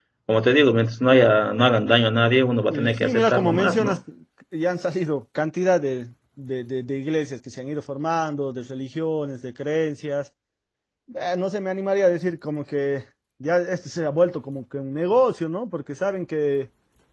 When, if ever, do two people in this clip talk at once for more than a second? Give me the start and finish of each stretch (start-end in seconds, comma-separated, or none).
2.7-4.0